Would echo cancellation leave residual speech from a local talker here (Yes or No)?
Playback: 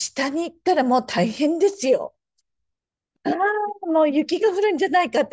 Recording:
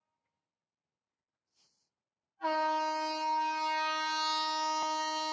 No